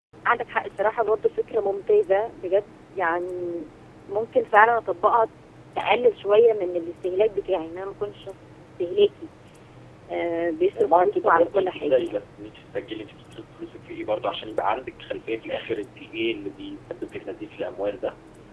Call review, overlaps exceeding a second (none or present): present